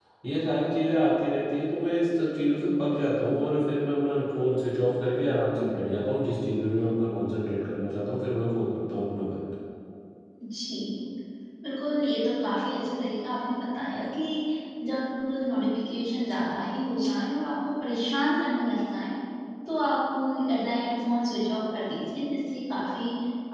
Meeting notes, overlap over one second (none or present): none